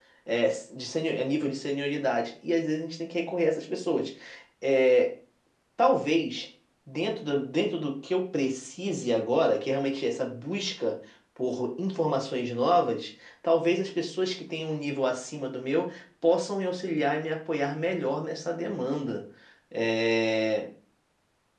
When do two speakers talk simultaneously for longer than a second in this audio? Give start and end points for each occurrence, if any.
none

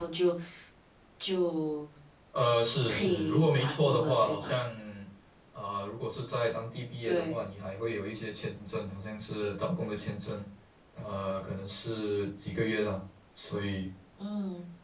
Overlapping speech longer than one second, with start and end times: 2.9-4.5

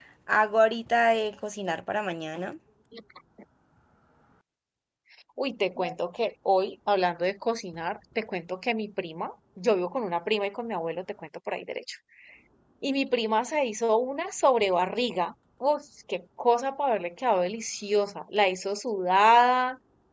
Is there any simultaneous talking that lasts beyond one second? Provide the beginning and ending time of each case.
none

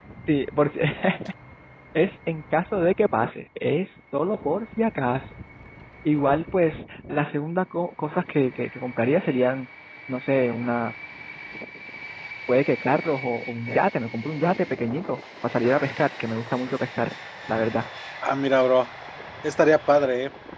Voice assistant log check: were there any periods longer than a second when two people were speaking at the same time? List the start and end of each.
none

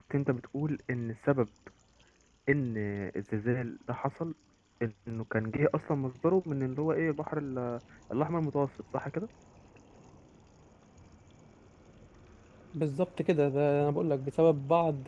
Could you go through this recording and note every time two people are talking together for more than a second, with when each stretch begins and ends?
none

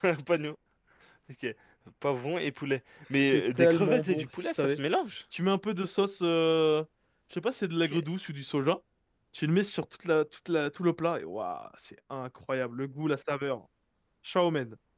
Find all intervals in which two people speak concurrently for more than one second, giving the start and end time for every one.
3.1-4.8

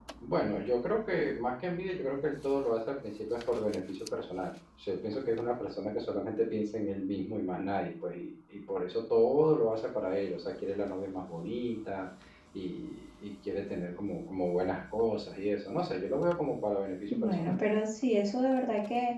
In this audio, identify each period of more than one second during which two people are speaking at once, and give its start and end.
none

